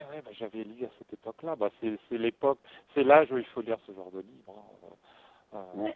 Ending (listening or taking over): taking over